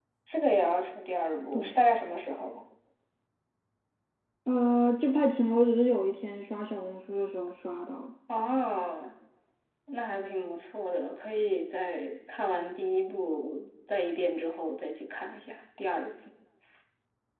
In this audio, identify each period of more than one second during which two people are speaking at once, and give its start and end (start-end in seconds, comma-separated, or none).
none